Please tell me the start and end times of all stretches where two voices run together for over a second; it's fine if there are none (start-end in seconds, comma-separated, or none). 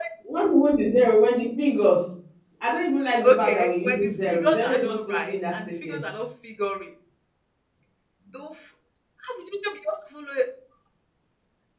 3.2-6.0